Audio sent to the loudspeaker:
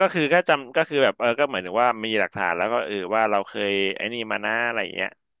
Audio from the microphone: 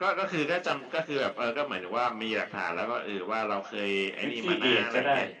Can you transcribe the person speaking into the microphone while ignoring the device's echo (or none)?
ฟิฟตี้เอก็ได้